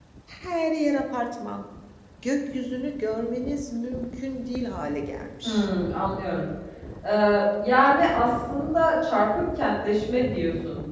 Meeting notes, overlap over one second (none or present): none